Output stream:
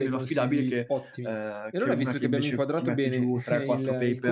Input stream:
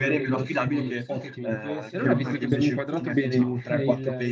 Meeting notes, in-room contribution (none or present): present